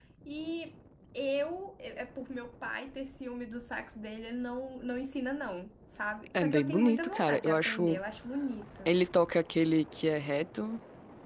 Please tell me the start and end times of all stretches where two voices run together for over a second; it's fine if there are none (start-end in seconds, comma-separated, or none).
6.3-8.0